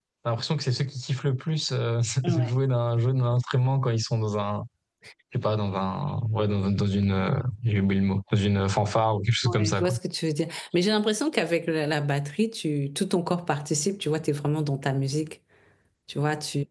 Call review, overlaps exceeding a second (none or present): none